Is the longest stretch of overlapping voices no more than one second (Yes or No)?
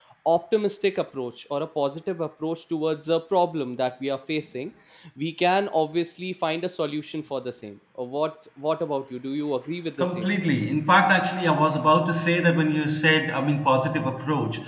Yes